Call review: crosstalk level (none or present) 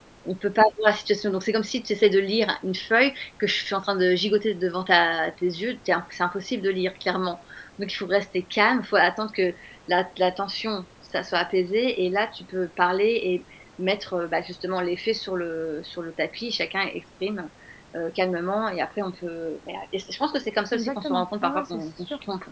present